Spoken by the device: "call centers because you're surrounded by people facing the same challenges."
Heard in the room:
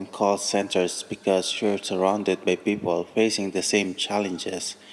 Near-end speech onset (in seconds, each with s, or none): none